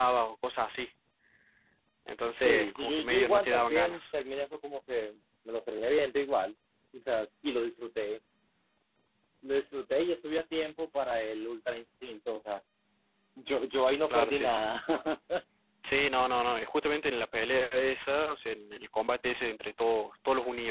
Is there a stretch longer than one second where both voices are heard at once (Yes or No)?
Yes